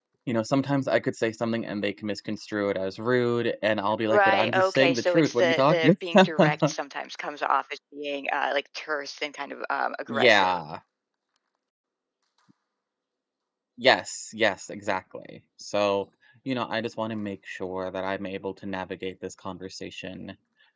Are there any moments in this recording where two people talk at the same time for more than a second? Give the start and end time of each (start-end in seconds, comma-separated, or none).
4.1-6.7